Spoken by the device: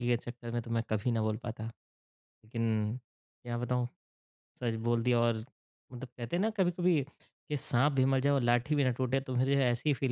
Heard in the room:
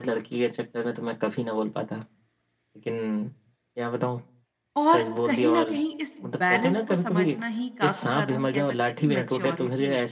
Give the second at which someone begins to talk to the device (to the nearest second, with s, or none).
5 s